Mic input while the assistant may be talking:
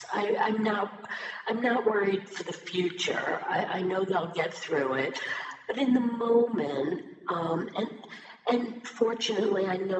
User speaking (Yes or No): No